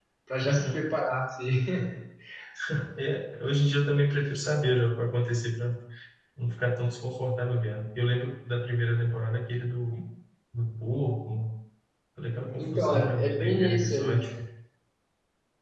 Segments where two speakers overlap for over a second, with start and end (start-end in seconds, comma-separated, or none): 12.6-14.2